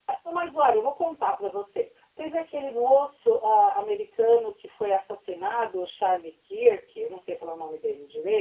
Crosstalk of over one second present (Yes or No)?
No